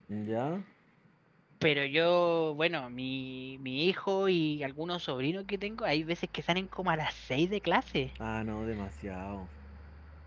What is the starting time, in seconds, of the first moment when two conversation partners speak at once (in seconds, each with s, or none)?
none